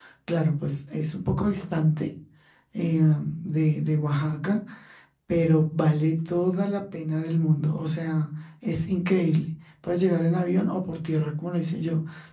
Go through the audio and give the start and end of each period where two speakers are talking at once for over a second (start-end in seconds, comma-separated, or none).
none